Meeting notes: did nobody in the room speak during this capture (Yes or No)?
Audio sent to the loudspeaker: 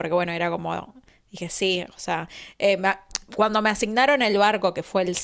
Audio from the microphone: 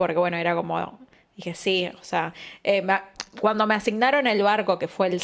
Yes